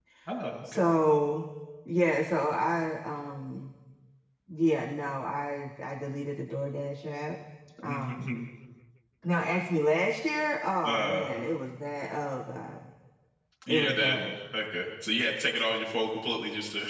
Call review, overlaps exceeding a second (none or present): none